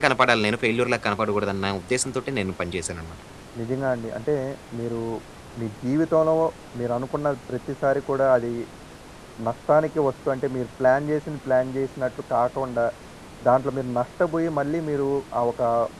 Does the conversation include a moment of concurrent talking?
No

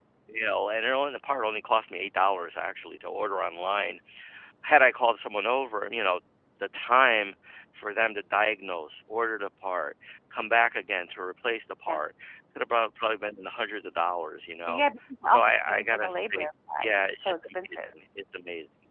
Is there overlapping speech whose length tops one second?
Yes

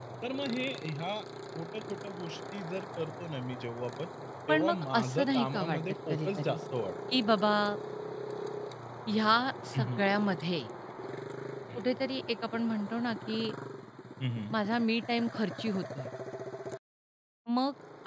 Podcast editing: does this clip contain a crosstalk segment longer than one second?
Yes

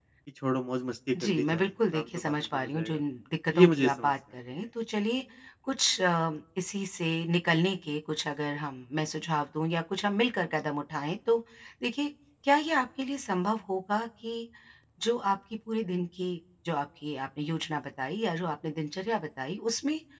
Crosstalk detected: Yes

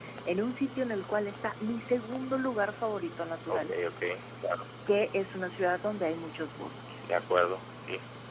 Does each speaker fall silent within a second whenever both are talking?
Yes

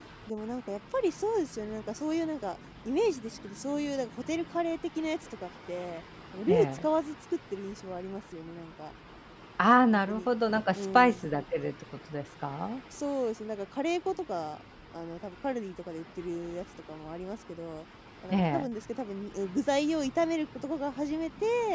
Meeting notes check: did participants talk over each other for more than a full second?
No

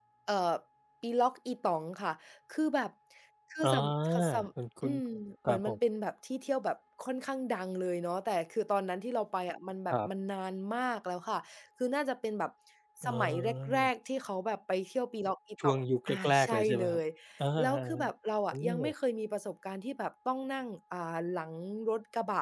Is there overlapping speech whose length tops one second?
Yes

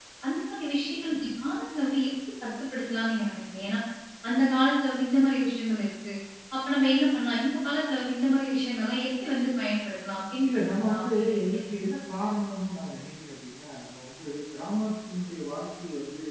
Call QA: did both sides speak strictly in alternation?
No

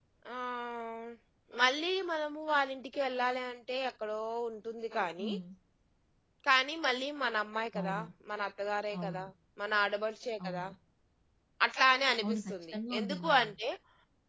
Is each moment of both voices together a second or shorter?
No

